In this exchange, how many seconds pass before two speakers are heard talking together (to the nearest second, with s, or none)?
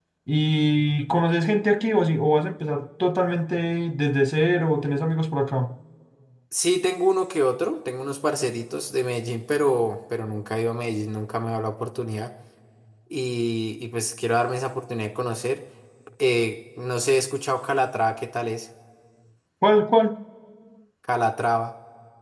none